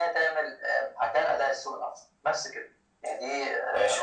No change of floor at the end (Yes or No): No